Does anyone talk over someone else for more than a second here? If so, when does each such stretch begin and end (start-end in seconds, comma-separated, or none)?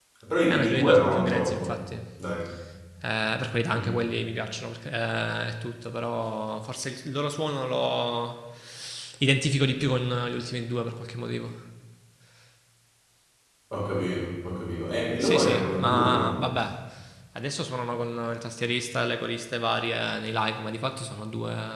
0.5-1.8, 15.2-16.5